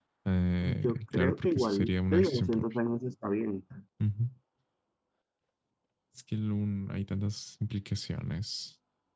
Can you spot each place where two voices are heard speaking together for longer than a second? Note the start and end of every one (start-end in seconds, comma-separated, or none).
0.8-2.6